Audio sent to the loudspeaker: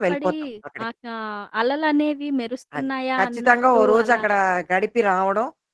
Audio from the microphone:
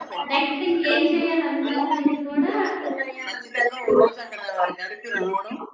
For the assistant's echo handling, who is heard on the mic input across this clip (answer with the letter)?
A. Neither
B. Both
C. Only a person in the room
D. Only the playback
B